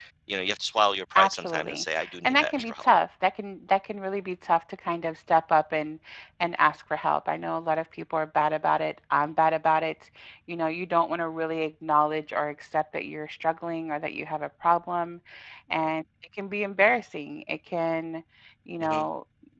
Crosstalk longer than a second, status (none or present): present